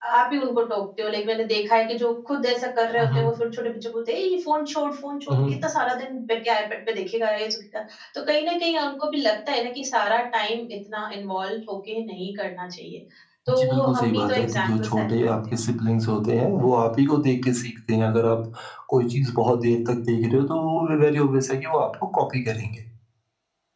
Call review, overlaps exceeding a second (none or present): present